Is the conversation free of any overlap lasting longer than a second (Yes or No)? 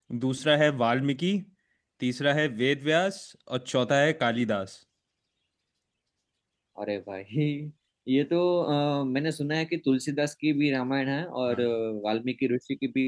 Yes